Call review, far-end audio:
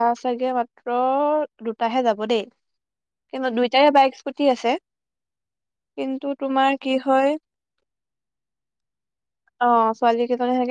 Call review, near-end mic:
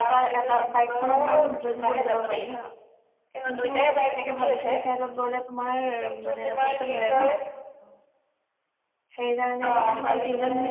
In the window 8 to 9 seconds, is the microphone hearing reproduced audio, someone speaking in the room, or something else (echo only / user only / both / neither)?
neither